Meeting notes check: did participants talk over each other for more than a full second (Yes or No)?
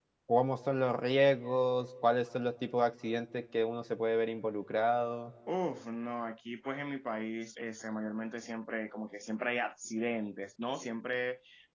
No